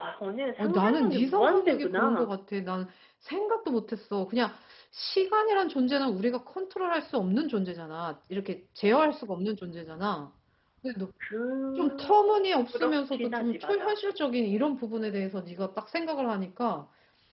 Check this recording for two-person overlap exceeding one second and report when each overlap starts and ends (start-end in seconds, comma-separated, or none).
0.6-2.3, 12.7-13.9